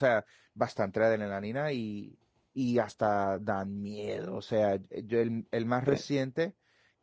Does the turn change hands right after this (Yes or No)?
No